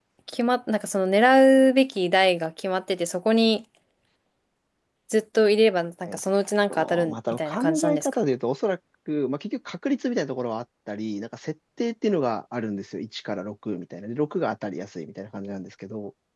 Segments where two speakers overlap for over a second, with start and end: 6.7-8.1

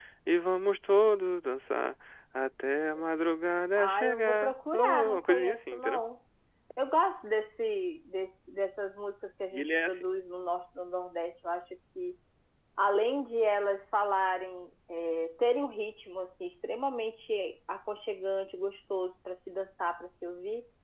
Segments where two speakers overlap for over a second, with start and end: 3.8-6.0

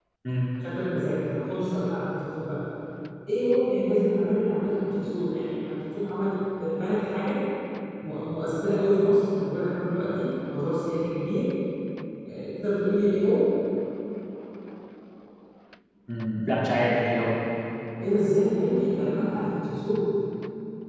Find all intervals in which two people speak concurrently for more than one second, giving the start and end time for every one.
none

